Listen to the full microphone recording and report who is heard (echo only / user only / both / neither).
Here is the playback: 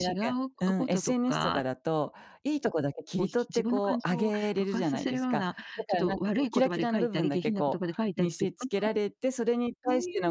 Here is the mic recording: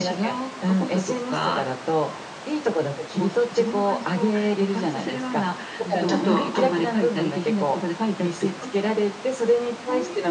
both